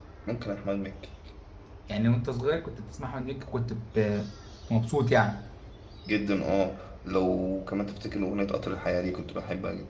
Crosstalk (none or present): none